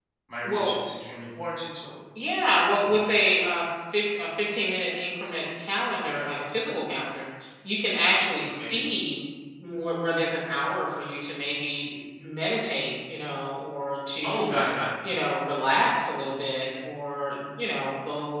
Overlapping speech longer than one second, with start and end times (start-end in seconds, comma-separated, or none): none